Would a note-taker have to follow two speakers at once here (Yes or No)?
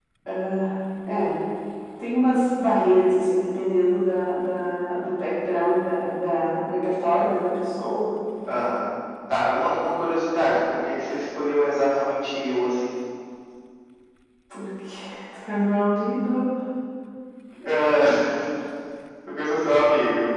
No